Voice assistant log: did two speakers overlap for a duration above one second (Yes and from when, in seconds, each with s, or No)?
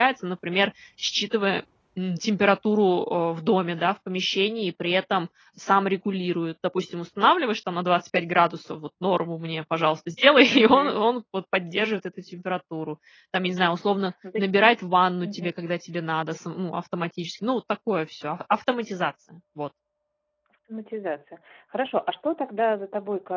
No